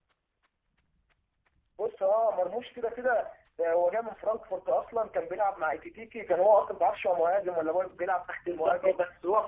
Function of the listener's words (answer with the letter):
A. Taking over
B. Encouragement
A